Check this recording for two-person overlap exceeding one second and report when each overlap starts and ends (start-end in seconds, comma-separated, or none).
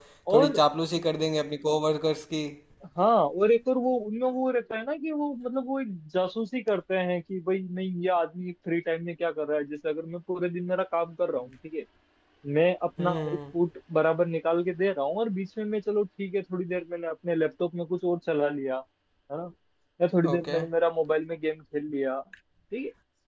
none